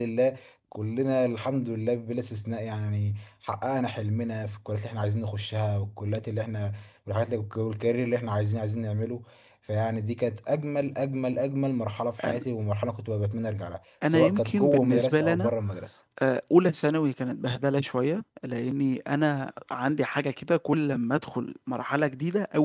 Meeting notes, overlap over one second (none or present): present